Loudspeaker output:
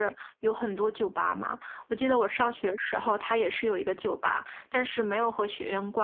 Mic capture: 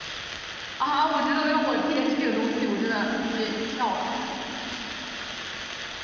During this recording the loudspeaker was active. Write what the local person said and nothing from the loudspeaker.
啊，我觉得要我天天吃这个东西，我真的直接跳了。

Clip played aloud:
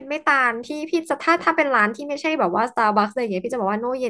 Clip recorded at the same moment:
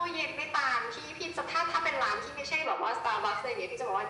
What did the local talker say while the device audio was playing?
none

